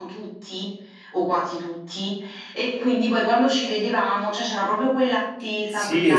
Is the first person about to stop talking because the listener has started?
Yes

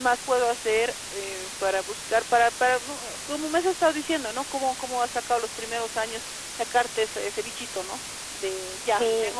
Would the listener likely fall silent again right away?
Yes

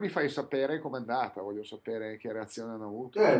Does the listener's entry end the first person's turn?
Yes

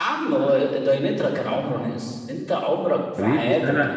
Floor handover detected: Yes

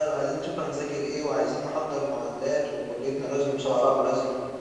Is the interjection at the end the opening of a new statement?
No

